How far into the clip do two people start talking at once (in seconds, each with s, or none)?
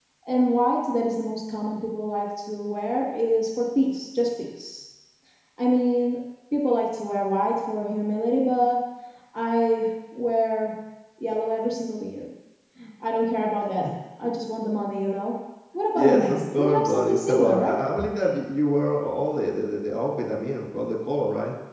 15.9 s